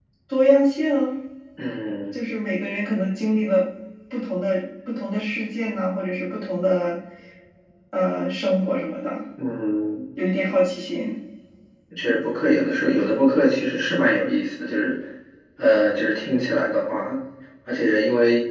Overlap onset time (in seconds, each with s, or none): none